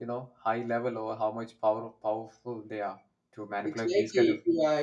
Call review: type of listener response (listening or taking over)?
taking over